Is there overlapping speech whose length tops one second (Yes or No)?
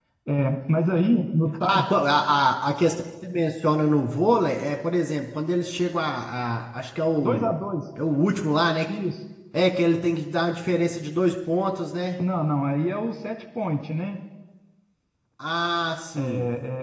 No